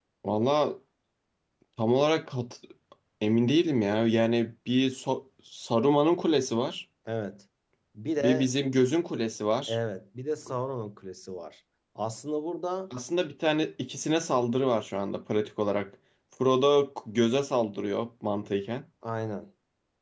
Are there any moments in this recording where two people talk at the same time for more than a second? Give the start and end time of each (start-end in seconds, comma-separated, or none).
none